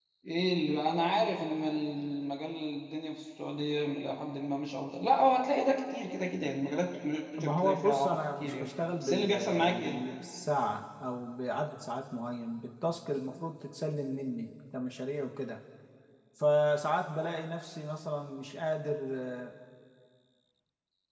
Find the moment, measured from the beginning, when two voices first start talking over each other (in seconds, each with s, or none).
7.4 s